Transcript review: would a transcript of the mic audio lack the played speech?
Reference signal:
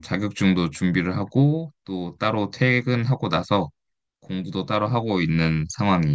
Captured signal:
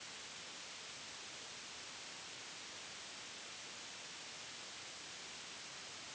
Yes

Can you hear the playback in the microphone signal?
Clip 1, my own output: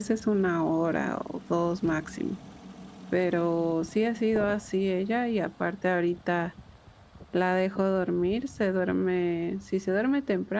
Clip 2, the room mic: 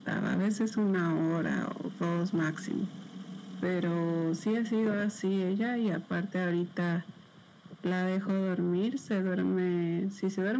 Yes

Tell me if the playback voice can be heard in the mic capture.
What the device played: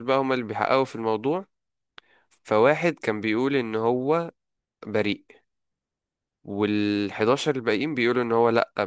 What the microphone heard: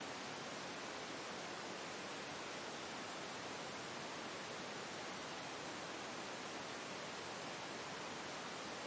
No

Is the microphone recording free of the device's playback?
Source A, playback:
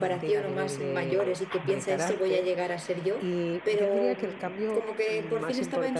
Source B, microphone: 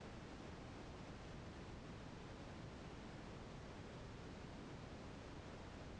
Yes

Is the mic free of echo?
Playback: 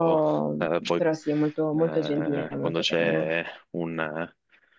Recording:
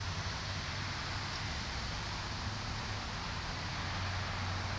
Yes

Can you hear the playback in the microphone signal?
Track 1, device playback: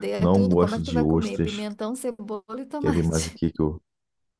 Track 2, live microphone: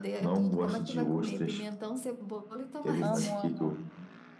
Yes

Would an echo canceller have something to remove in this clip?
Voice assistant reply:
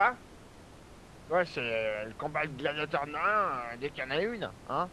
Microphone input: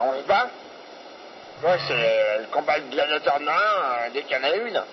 Yes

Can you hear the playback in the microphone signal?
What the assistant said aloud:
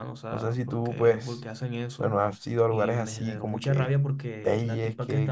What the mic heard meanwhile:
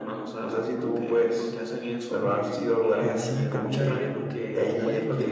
Yes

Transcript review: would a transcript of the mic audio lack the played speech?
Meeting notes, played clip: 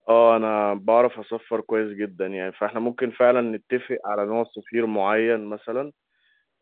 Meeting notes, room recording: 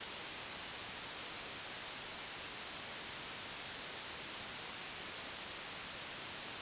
Yes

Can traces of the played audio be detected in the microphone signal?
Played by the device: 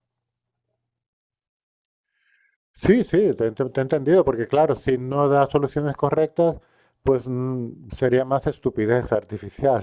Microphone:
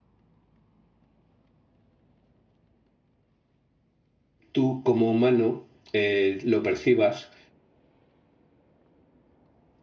No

